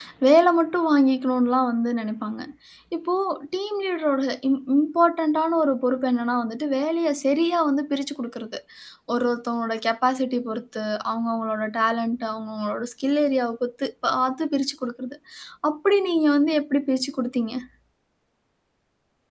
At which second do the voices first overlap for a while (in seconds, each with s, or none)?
none